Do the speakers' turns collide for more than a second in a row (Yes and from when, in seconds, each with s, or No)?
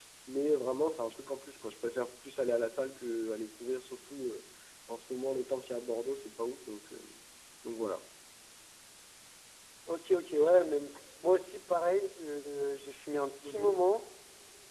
No